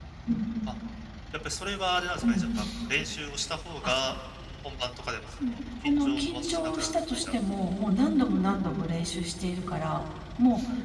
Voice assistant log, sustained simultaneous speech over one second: present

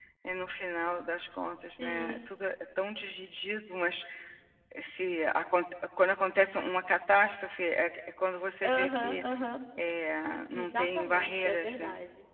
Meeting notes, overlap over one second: present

